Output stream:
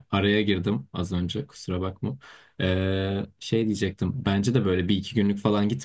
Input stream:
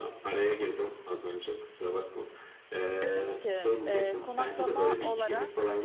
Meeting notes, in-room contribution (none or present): present